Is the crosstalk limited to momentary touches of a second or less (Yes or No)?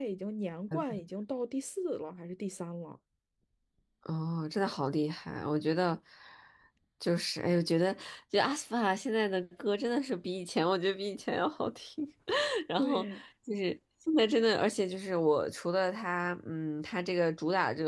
Yes